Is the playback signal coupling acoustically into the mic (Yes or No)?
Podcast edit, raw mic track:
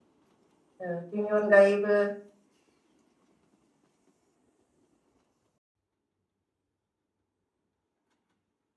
No